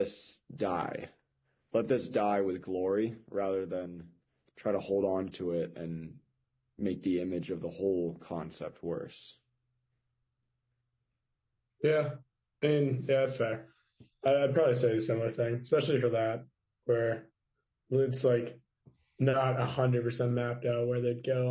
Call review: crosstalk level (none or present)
none